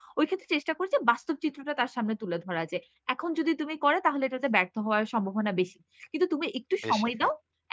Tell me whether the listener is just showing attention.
Yes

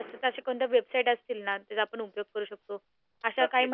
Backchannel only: No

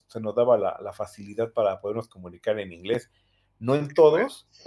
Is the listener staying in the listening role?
Yes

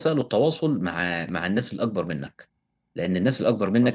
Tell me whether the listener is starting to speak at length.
No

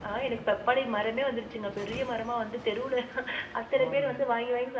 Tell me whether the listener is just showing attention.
Yes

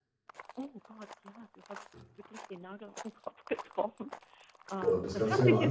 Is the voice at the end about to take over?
Yes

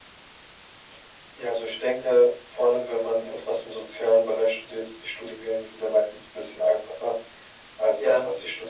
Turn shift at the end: No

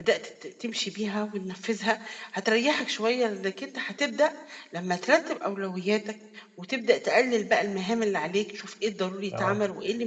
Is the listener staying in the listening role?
Yes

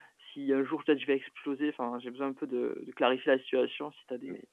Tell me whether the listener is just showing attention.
No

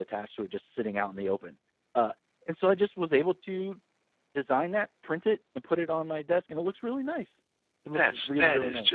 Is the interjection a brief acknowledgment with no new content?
No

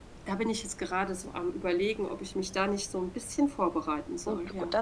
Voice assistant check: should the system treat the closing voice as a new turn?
Yes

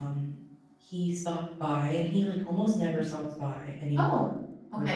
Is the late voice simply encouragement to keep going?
Yes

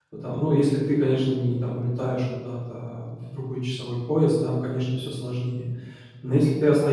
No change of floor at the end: Yes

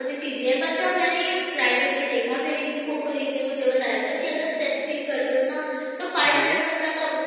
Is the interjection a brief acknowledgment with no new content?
Yes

